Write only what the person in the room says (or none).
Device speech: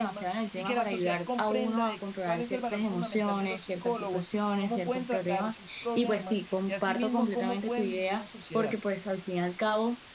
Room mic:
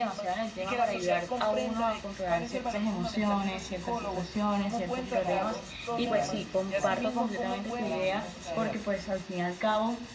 Sí, claro, de raíz, o sea, para mañana es tarde.